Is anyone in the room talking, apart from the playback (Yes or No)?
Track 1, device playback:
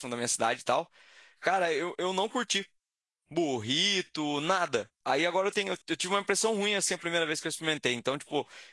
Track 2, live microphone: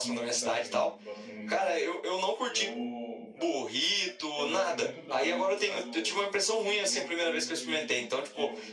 Yes